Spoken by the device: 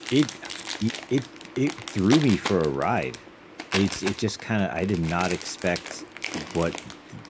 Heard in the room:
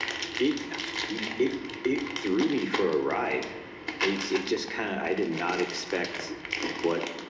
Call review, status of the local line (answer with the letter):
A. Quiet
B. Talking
A